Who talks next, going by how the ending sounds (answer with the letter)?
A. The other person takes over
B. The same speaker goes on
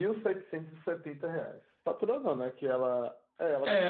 A